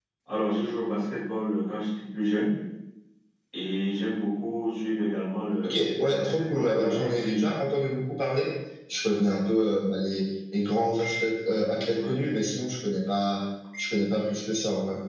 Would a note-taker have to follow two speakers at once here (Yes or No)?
Yes